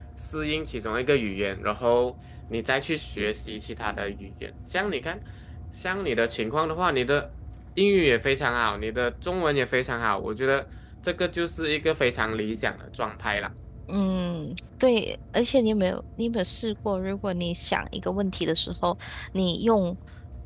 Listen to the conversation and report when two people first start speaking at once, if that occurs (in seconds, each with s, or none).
none